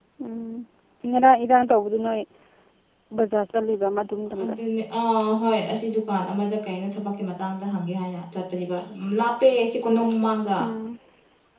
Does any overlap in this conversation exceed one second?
No

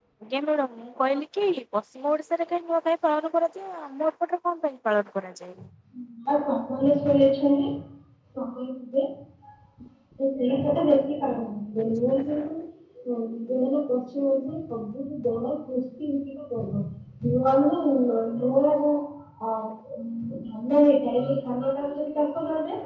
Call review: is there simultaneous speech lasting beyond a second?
No

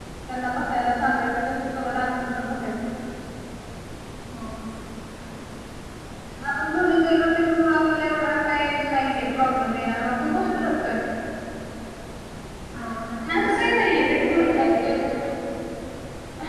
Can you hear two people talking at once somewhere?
Yes, from 13.2 s

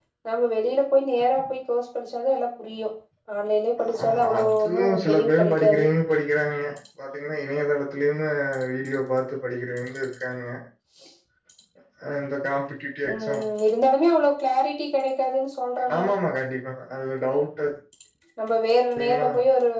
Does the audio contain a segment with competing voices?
Yes, from 4.0 s

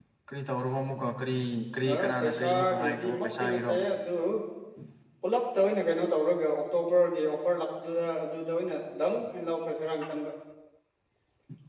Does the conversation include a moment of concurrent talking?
Yes, from 1.9 s

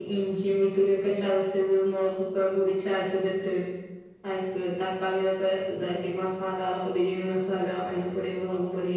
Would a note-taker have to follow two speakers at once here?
No

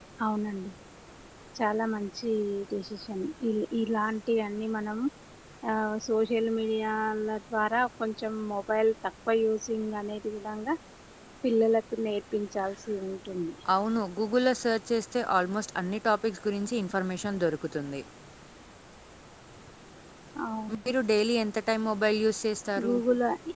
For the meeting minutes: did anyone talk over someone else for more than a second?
No

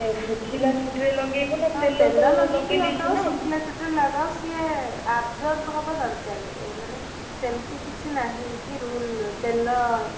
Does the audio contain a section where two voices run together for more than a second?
Yes, from 1.7 s

